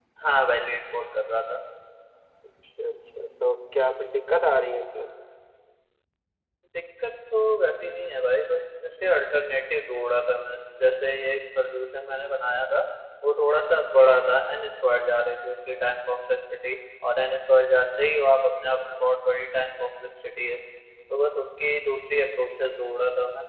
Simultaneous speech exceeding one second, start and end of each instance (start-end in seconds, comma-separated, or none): none